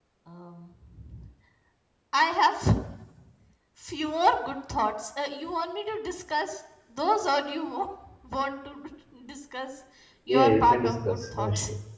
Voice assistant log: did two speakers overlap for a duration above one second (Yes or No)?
Yes